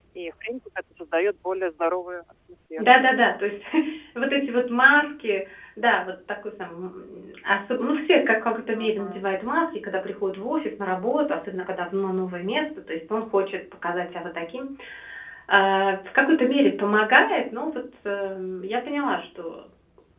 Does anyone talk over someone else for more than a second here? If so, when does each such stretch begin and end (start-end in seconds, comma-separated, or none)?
none